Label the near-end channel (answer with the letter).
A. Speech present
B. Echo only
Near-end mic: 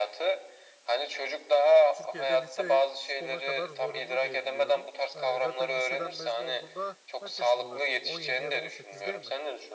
A